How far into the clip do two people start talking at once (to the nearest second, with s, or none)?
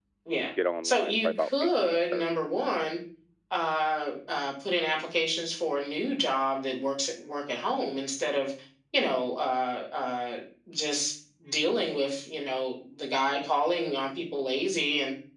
1 s